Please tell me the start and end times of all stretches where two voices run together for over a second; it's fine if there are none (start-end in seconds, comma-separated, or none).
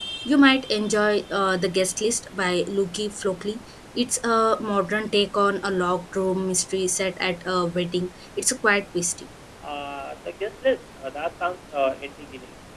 none